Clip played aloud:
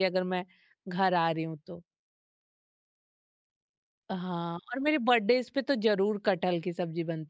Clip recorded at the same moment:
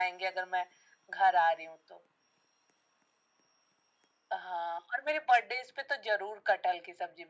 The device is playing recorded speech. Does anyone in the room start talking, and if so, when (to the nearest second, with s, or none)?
none